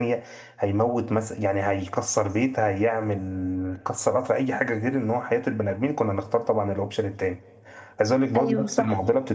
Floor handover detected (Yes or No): No